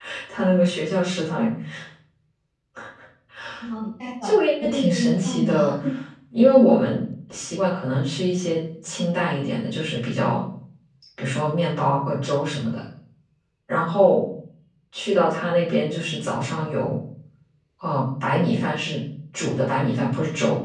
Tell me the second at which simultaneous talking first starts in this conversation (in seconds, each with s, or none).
4.2 s